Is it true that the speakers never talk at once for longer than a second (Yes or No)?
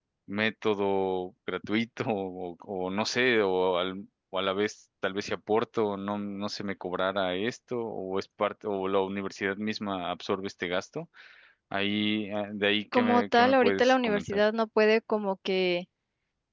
No